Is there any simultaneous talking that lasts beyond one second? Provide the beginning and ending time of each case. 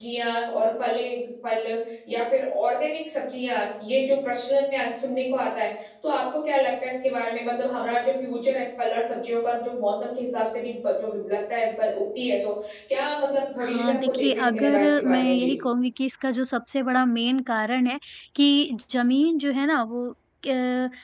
13.6-15.5

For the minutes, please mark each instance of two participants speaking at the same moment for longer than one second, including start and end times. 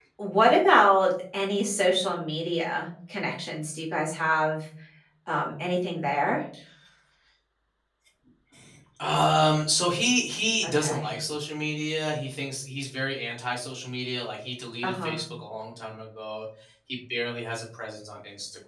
none

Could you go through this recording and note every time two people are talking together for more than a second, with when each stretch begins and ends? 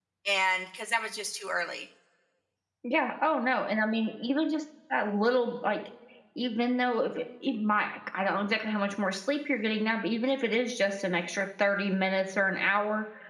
none

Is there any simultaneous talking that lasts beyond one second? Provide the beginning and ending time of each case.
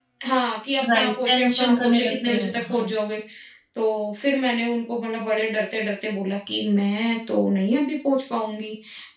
0.9-2.8

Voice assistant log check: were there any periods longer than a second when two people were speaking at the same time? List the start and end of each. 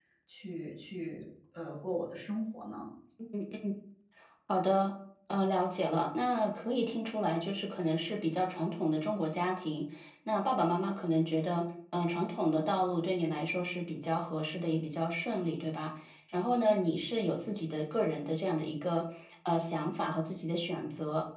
none

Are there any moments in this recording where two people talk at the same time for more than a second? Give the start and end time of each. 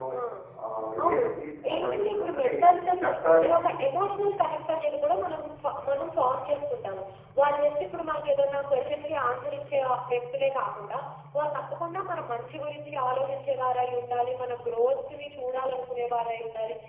1.7-3.5

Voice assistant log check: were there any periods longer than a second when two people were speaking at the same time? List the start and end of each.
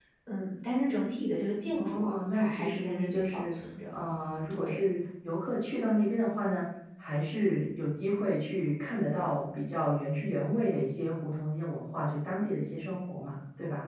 1.7-3.6

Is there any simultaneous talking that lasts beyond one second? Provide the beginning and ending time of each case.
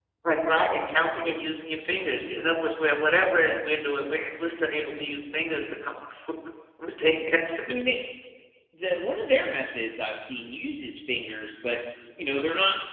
none

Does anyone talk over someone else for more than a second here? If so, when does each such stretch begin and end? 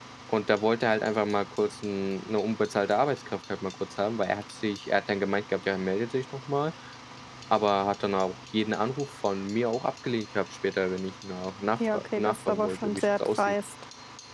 11.9-13.5

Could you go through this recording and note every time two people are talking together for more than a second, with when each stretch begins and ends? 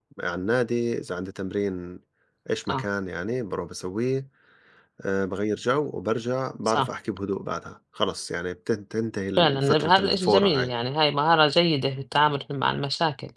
9.4-10.7

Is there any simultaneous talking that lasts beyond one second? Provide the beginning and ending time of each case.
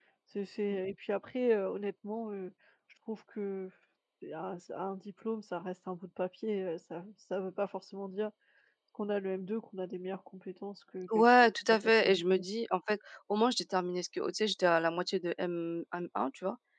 11.2-12.4

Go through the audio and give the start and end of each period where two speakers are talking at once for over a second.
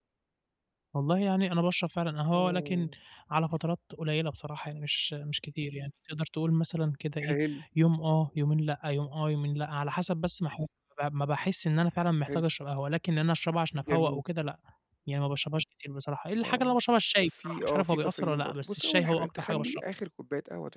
17.4-19.8

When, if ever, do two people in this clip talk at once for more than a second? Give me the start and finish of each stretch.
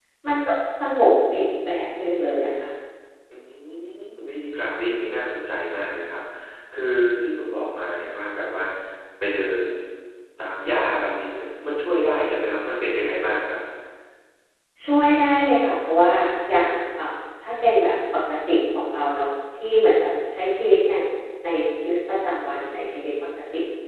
none

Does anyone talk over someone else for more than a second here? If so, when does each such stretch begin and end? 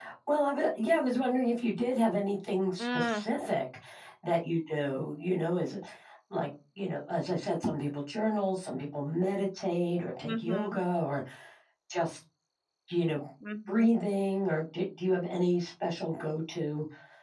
none

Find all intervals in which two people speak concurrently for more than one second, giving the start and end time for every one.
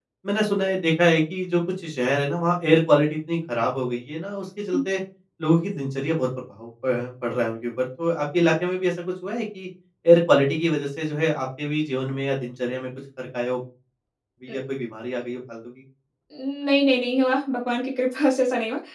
none

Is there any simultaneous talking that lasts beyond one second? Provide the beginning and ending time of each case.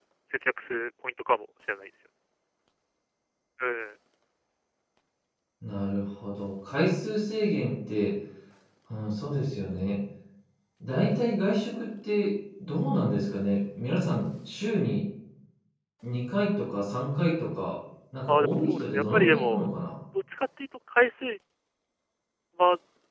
18.3-19.7

